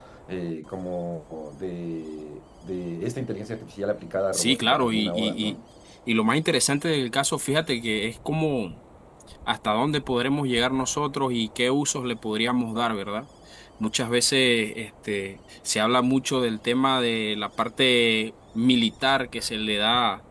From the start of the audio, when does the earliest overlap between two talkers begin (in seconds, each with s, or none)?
4.3 s